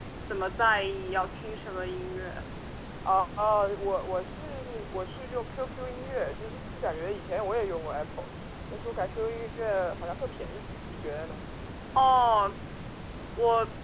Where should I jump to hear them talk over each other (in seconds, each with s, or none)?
none